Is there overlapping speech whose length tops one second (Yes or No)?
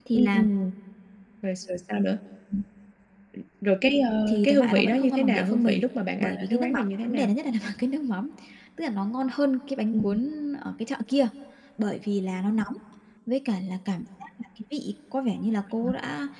Yes